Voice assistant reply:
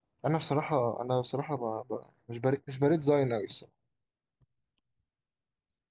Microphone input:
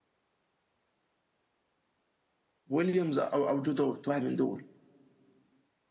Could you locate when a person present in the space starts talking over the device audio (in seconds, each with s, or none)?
2.7 s